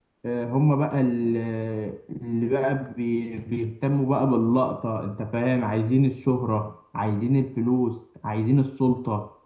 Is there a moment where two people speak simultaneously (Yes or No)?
No